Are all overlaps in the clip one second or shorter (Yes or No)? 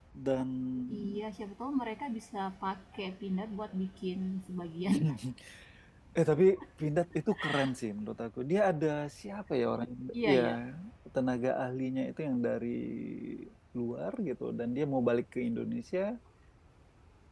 Yes